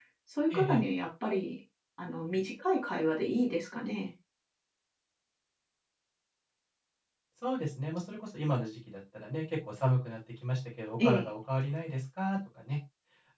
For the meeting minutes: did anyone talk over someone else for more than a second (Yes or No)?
No